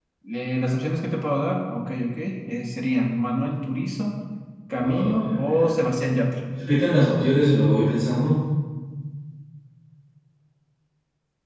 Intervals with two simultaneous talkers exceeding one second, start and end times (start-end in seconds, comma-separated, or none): 4.7-5.9